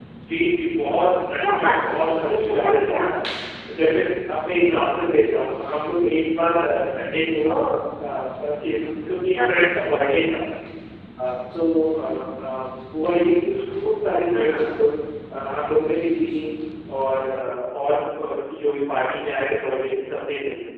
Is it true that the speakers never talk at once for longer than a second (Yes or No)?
No